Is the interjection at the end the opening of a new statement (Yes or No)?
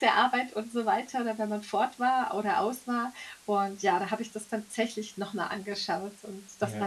Yes